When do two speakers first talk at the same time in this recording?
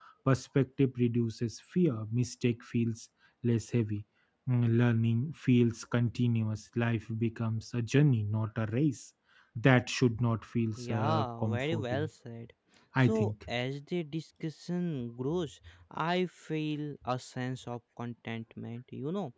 10.8 s

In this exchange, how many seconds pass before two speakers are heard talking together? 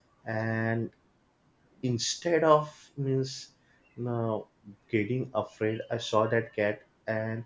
none

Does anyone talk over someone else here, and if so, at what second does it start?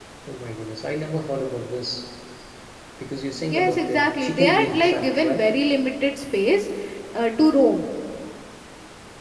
3.3 s

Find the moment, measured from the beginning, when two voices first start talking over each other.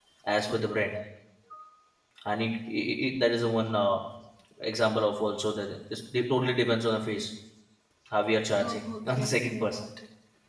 8.6 s

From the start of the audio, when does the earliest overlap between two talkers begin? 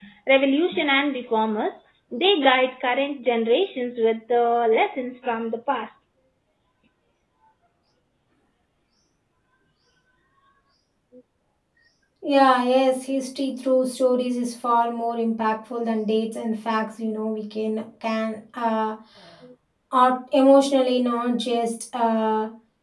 none

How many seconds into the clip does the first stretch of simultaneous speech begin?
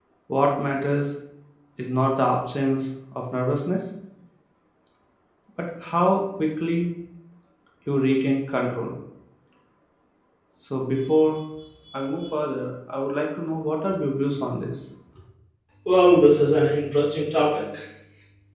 none

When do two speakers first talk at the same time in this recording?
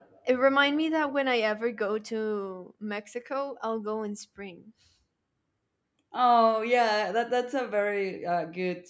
none

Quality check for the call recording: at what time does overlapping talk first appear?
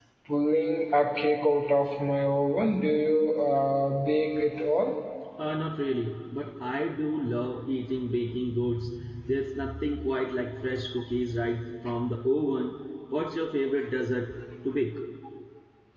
none

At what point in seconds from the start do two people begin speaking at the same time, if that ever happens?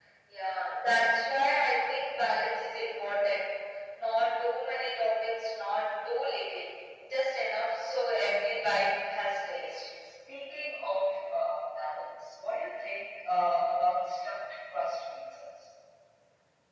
none

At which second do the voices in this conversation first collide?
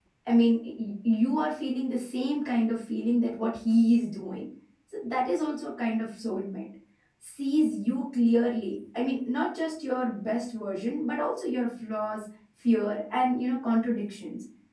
none

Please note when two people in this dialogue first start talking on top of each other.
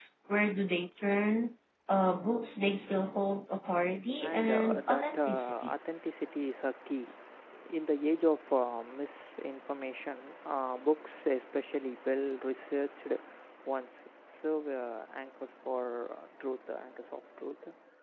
4.2 s

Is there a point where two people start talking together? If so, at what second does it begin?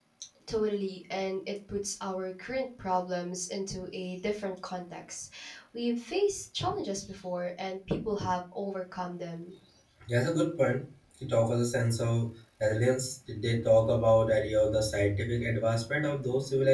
none

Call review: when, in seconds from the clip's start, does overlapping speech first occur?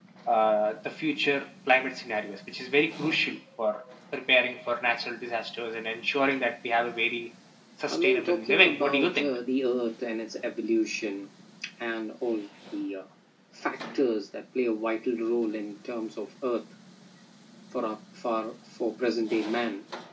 7.9 s

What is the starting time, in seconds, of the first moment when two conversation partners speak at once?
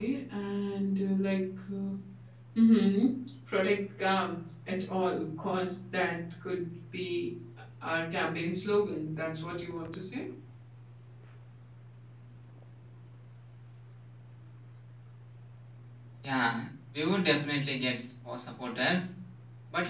none

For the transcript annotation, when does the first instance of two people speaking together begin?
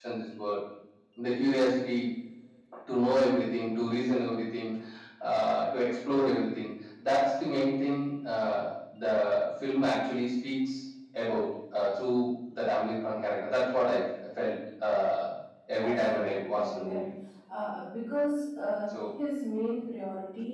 15.8 s

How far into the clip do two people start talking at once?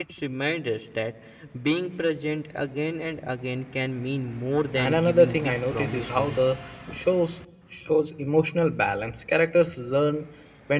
4.7 s

